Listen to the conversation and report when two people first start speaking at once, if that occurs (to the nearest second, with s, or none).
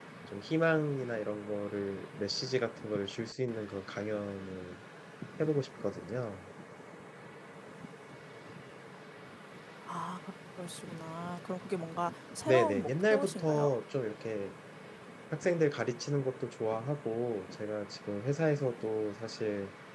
12 s